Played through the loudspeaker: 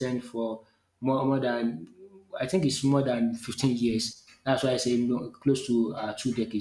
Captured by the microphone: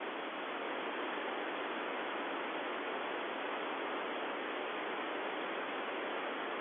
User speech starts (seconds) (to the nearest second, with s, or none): none